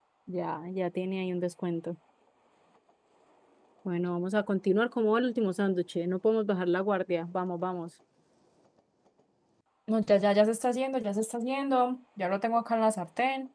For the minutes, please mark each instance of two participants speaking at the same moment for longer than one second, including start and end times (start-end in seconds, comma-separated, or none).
none